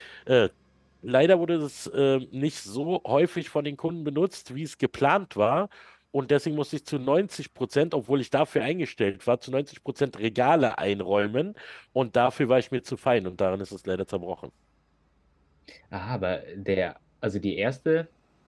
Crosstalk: none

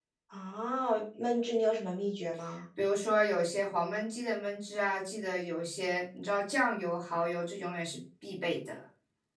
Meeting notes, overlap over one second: none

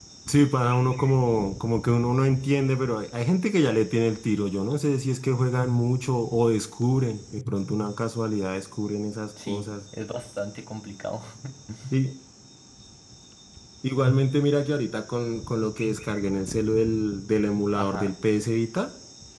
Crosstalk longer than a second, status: none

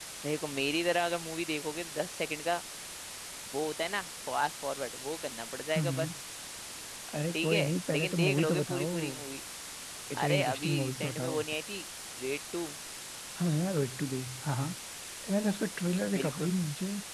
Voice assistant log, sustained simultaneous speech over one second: present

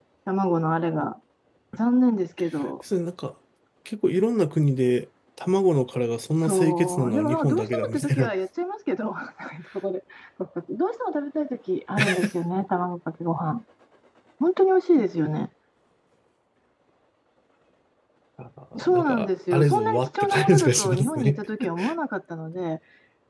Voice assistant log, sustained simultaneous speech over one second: present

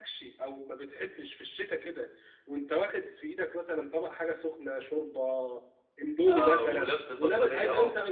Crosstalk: present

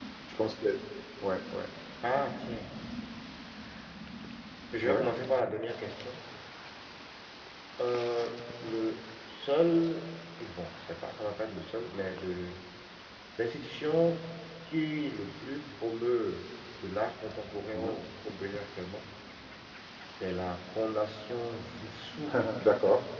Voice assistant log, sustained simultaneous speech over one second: none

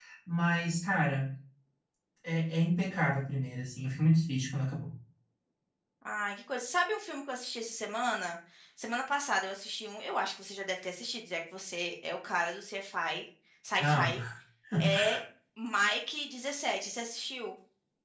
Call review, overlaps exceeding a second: none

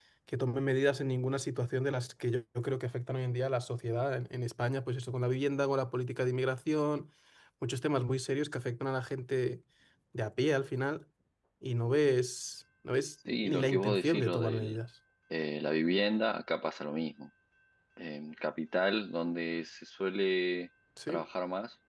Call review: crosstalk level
present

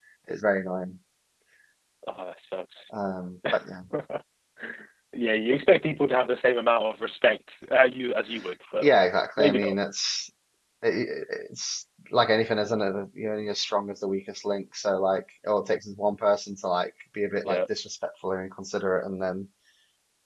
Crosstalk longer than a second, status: none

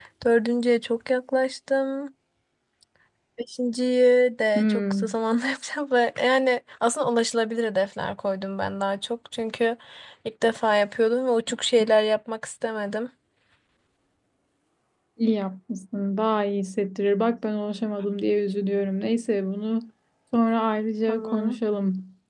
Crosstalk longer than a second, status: none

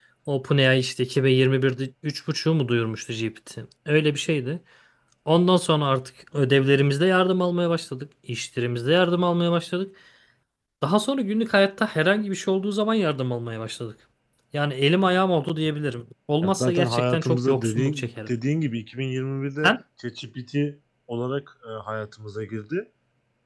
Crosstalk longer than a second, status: present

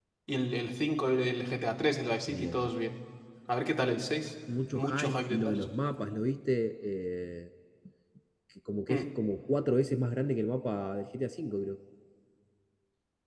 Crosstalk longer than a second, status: present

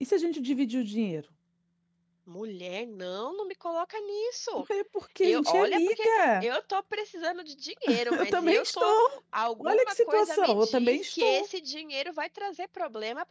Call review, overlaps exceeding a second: present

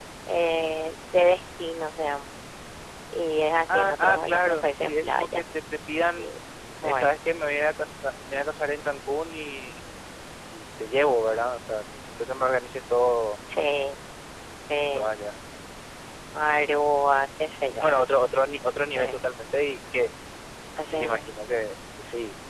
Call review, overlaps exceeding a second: present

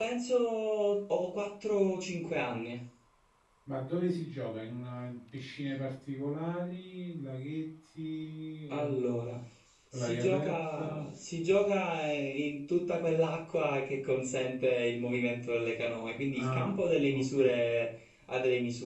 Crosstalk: present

